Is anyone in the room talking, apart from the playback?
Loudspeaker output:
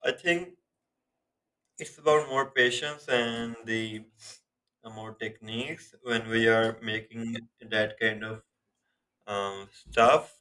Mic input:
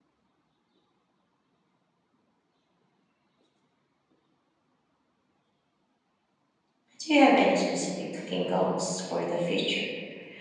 Yes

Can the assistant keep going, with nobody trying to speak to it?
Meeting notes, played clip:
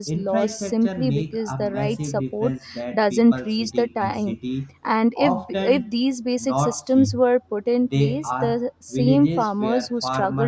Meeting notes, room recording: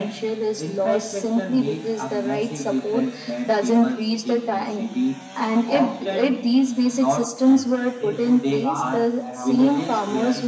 No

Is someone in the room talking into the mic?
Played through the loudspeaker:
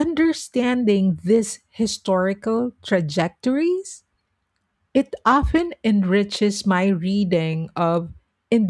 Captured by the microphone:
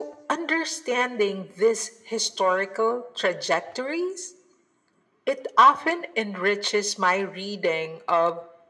No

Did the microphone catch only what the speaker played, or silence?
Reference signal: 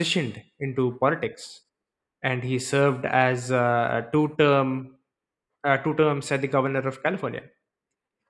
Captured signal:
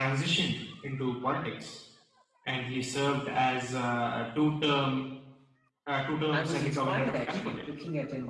No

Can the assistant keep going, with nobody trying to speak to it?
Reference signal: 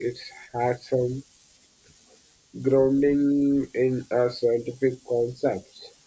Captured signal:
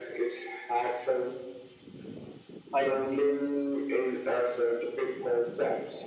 No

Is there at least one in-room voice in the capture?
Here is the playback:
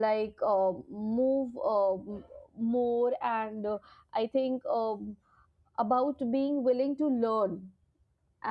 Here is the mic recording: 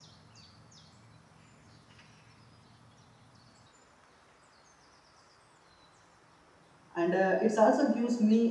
Yes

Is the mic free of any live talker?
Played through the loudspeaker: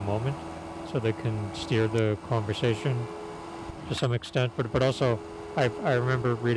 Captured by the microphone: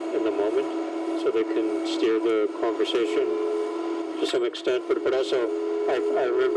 Yes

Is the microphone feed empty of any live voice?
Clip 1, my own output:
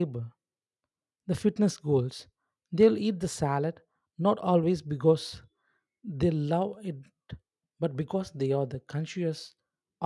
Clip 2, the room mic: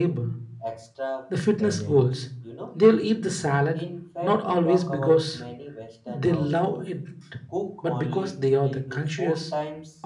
No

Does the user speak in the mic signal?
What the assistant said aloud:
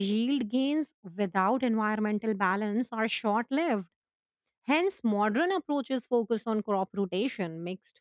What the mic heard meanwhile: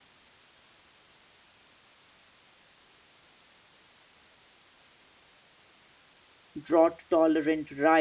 Yes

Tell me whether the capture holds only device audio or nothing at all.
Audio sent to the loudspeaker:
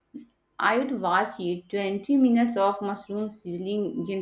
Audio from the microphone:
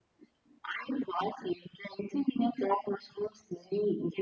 Yes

